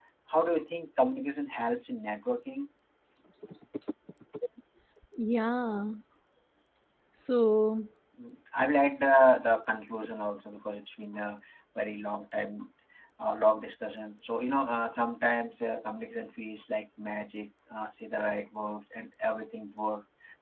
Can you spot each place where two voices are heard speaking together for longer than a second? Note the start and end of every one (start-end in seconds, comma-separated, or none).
none